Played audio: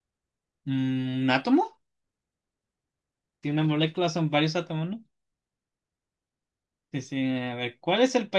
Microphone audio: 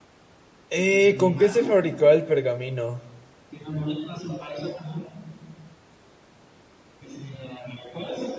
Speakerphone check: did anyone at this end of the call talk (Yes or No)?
Yes